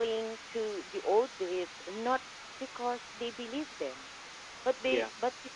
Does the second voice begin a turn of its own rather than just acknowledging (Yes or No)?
No